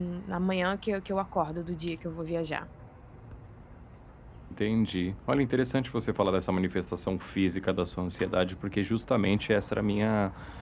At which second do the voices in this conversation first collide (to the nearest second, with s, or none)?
none